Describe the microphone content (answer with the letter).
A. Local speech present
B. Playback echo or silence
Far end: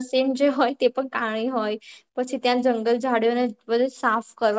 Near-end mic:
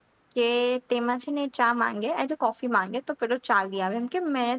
A